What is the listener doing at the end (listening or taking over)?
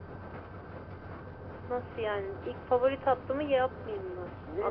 taking over